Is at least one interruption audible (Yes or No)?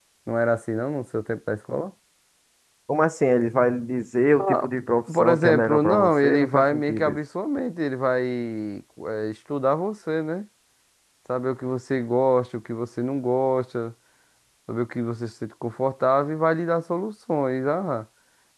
Yes